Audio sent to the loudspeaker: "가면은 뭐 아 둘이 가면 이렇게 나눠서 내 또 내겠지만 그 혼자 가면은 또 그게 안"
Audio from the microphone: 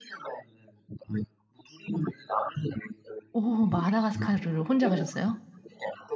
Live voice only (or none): 오. 마다가스카르를 혼자 가셨어요?